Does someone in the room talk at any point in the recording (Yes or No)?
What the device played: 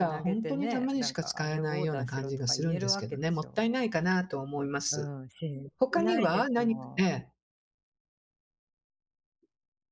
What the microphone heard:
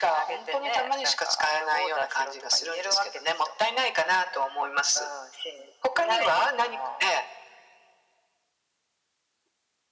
No